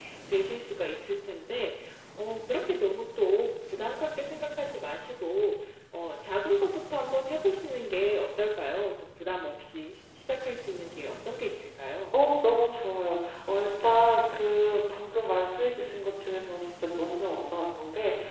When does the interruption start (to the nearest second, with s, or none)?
none